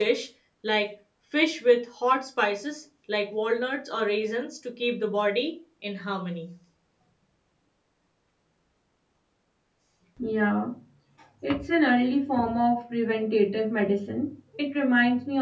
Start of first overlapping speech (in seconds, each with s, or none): none